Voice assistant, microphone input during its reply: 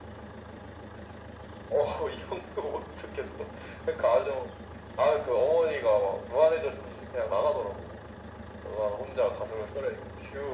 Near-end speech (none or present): none